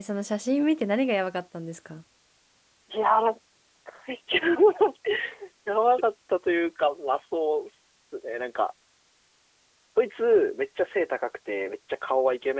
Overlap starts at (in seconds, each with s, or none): none